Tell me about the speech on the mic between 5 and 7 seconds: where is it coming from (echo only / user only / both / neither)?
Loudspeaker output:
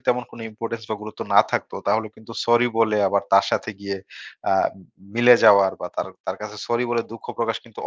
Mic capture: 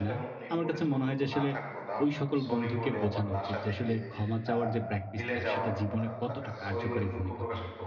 both